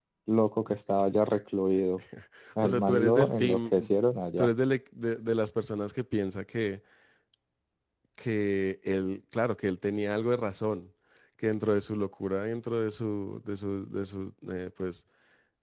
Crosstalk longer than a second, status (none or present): present